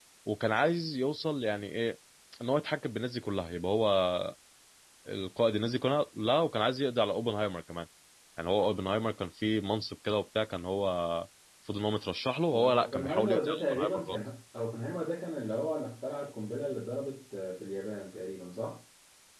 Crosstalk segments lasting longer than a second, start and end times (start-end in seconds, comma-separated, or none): 12.5-14.2